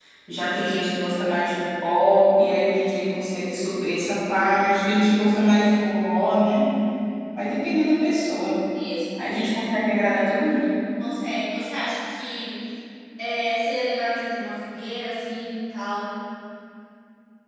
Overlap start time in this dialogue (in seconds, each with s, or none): none